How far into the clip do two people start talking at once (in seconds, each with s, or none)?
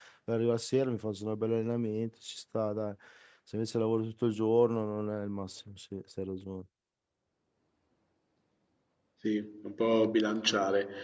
none